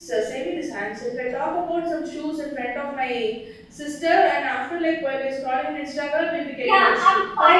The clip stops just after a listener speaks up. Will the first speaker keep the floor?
No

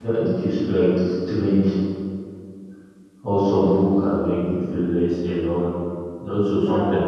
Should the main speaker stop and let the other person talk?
No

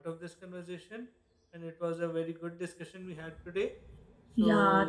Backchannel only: No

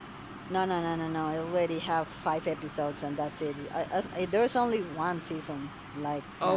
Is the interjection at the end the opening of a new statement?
Yes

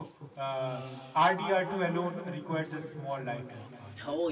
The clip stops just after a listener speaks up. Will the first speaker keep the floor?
No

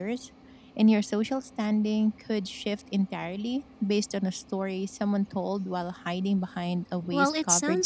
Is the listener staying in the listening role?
No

